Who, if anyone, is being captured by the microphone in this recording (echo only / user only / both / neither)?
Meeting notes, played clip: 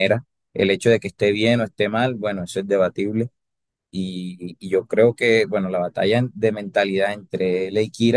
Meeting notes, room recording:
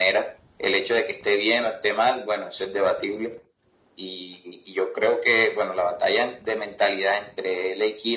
echo only